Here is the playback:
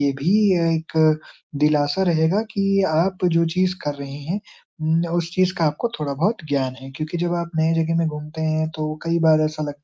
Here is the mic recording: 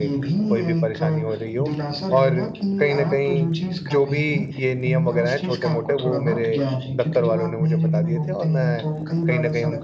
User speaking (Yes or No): Yes